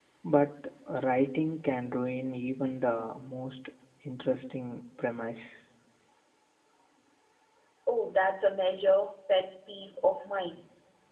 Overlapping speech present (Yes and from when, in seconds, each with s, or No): No